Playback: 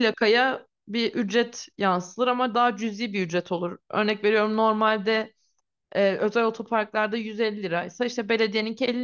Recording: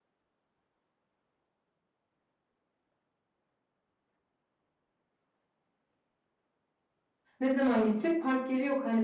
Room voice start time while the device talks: 7.4 s

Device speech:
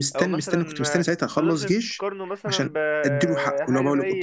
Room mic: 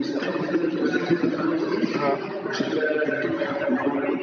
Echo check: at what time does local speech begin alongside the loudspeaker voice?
1.9 s

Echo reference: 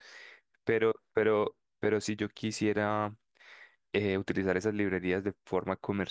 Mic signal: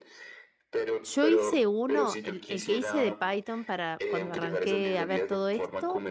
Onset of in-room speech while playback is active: 1.0 s

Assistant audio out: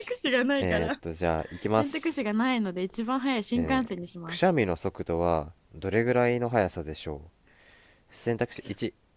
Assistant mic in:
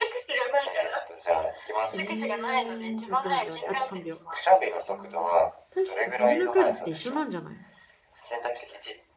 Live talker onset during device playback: 1.9 s

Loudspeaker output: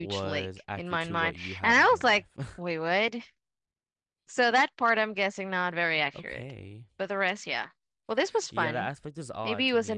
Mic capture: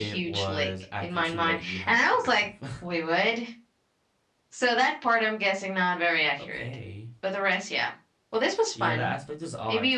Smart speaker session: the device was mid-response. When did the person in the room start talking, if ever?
none

